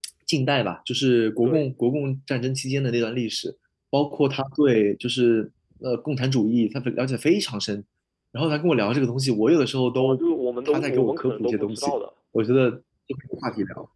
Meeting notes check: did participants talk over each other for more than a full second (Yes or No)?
Yes